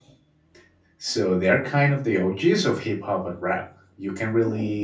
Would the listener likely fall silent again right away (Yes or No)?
Yes